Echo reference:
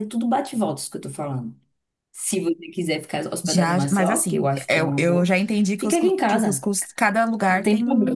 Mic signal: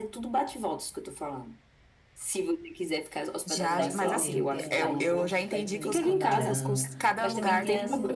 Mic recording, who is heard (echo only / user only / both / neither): both